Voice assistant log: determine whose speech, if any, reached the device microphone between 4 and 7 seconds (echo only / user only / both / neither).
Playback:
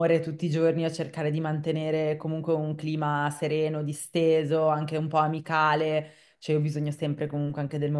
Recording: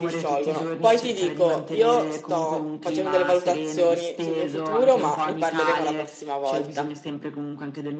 both